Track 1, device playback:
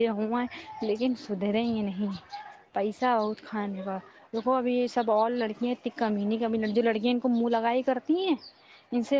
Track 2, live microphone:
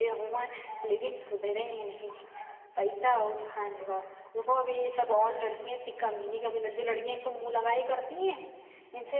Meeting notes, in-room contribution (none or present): none